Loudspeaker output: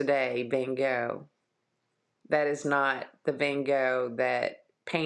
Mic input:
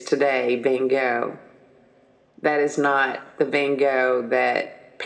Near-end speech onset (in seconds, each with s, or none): none